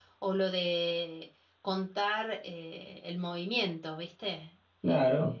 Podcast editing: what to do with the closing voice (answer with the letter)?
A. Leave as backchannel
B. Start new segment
B